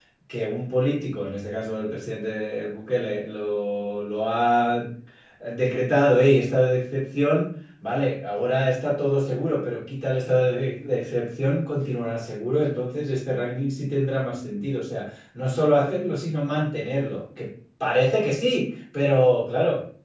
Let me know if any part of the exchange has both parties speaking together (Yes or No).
No